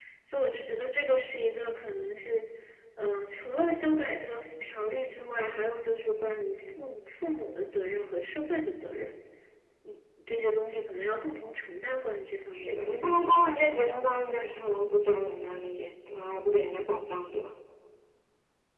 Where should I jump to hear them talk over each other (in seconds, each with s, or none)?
12.5 s